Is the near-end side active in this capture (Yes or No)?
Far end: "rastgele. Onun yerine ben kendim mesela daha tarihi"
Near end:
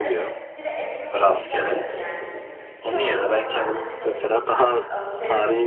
Yes